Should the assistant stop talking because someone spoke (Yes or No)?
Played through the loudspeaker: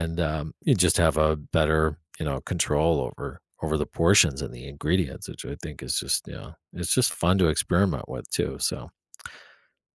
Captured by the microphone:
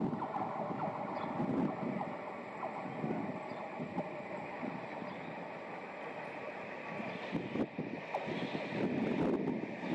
No